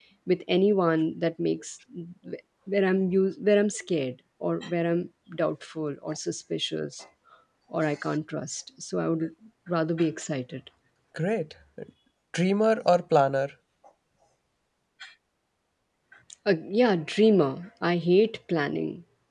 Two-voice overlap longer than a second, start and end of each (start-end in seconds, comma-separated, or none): none